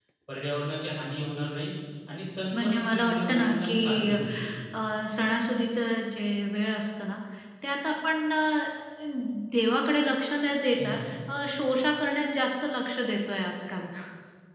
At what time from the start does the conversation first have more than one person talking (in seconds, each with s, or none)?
2.5 s